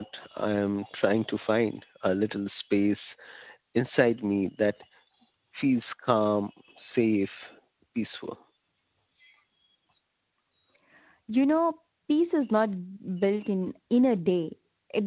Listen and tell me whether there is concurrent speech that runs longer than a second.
No

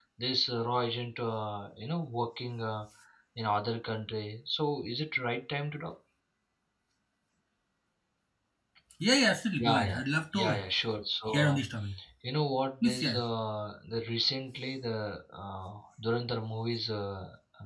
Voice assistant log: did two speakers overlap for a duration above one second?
No

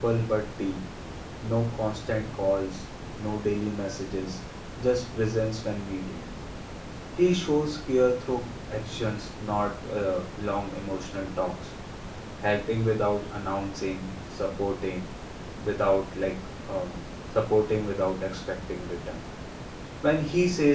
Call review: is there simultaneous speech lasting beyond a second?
No

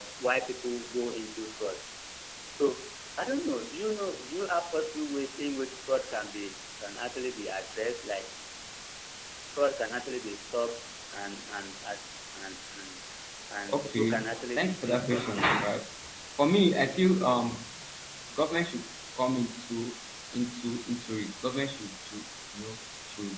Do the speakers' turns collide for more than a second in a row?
Yes, from 13.7 s

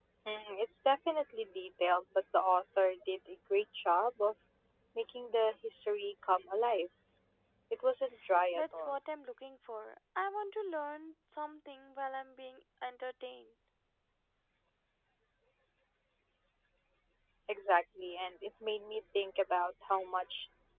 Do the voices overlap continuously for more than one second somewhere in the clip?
No

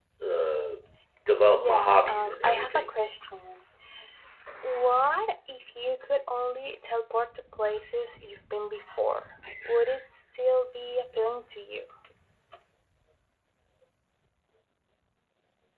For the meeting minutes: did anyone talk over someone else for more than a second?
Yes, from 1.5 s

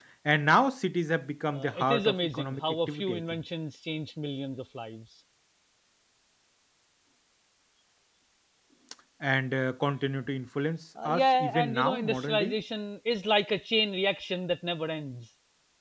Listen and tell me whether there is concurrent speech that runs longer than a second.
Yes, from 1.5 s

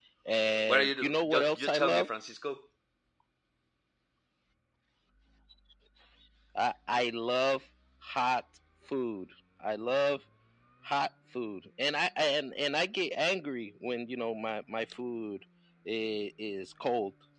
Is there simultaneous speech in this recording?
Yes, from 0.7 s

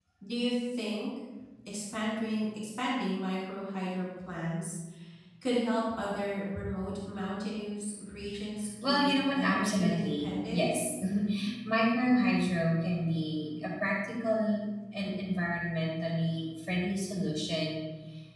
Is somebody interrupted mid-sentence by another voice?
Yes, from 8.8 s

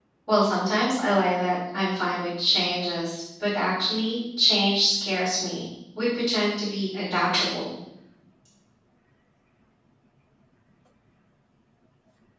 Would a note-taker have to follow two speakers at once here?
No

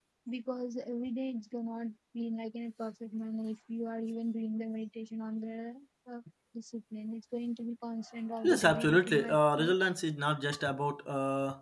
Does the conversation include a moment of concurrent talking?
Yes, from 8.3 s

